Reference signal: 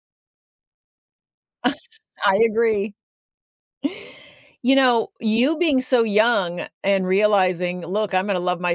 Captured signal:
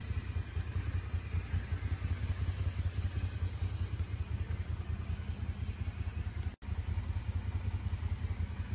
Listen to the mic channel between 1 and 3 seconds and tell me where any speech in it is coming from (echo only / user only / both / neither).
neither